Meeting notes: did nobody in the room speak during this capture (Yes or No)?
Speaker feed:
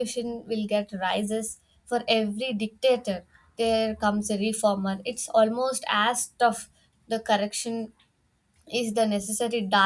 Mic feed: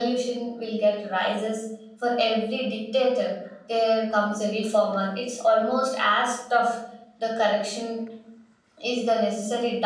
Yes